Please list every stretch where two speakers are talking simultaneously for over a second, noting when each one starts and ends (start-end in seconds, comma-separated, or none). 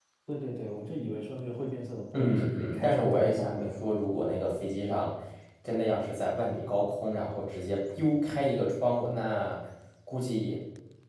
2.1-3.7